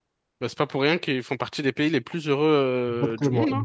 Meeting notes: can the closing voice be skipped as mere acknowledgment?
No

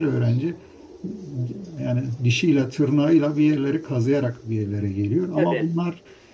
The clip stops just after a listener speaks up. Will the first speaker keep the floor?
Yes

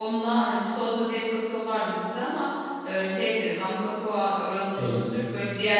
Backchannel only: Yes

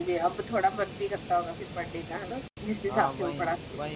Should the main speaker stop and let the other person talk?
Yes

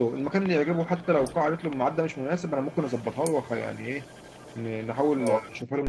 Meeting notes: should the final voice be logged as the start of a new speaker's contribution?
No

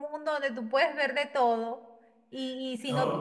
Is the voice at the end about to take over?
No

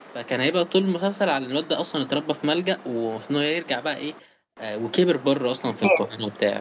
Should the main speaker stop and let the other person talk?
No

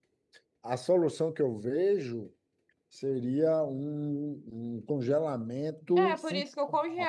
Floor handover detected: Yes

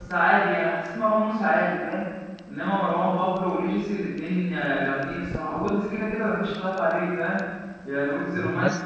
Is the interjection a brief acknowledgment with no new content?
Yes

